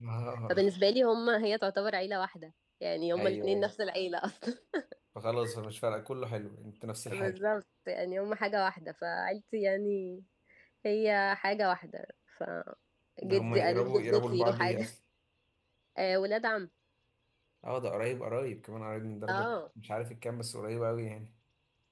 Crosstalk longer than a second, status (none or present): present